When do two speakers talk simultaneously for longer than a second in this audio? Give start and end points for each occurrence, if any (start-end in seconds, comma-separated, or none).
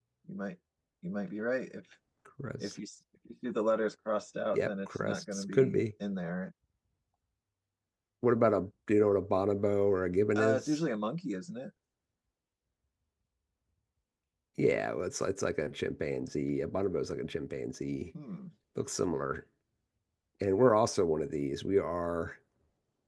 4.5-5.8